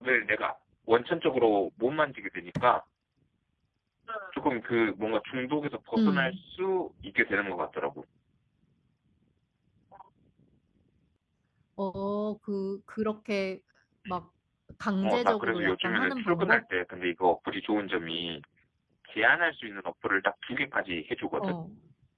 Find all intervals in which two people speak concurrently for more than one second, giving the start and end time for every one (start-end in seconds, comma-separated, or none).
15.0-16.6